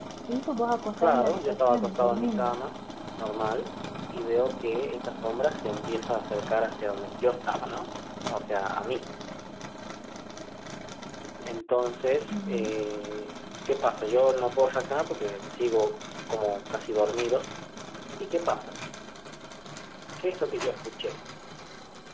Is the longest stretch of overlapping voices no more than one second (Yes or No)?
No